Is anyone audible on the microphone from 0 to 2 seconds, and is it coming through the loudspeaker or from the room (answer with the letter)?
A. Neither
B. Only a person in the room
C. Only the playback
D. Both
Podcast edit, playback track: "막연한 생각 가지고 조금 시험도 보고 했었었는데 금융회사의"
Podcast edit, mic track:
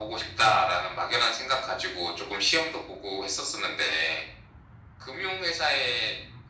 C